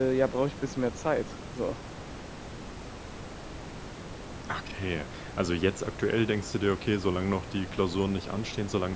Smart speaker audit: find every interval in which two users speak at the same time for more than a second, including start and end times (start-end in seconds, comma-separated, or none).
none